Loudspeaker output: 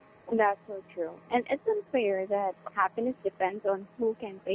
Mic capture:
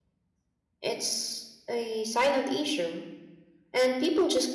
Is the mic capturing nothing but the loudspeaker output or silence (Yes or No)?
No